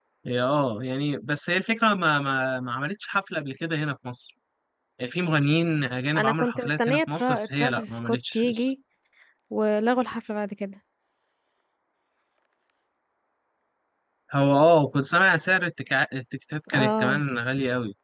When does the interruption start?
6.2 s

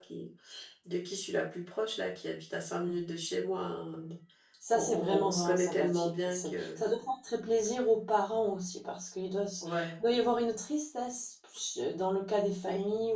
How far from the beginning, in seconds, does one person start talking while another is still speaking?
4.7 s

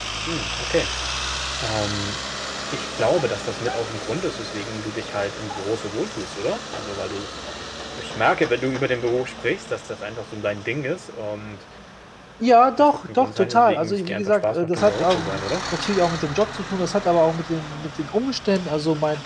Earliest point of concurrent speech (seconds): 12.8 s

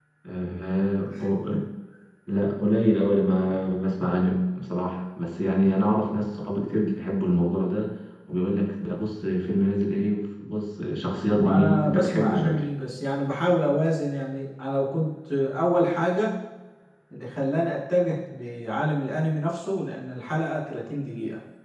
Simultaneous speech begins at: 11.3 s

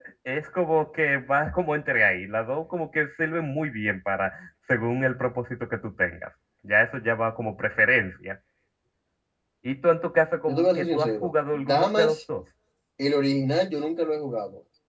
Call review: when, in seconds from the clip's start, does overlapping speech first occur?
10.5 s

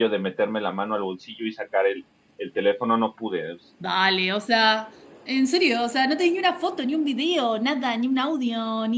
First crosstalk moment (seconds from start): none

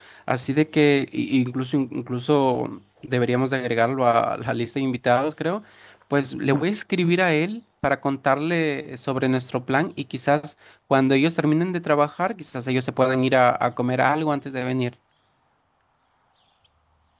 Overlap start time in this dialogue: none

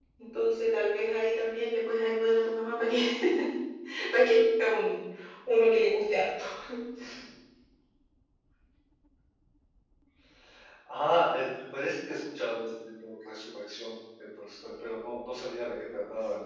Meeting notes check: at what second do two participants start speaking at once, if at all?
none

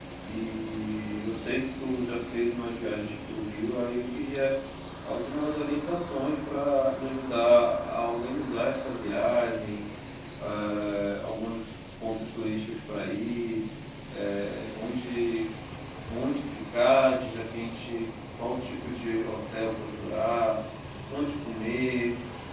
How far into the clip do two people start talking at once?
none

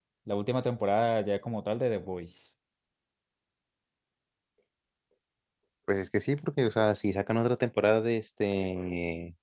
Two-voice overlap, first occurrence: none

